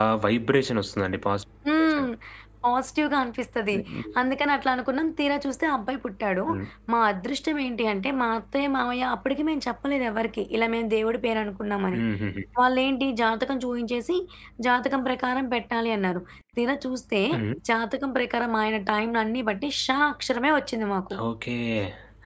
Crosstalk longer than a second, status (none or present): none